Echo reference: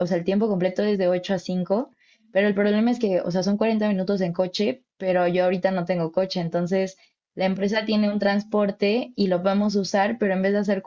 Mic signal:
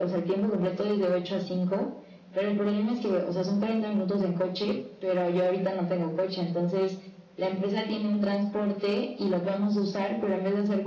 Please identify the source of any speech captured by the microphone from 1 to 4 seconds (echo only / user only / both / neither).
echo only